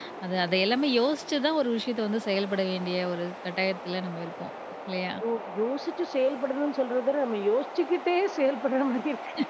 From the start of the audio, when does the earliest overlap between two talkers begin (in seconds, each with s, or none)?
none